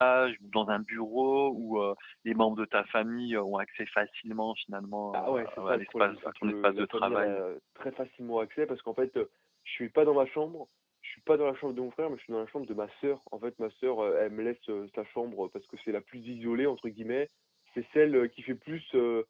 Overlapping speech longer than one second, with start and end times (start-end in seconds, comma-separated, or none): 5.1-7.4